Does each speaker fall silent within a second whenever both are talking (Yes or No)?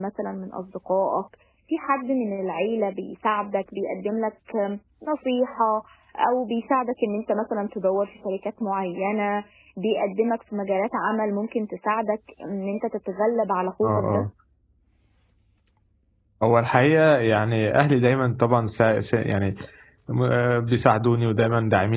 Yes